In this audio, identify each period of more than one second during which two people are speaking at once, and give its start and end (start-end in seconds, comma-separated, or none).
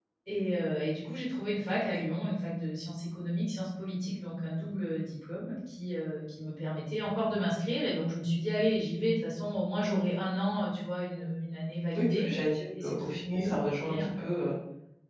12.8-14.1